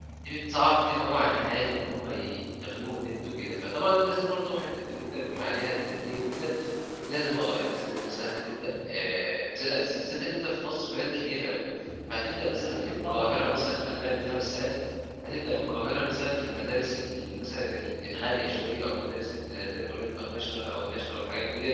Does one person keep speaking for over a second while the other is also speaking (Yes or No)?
Yes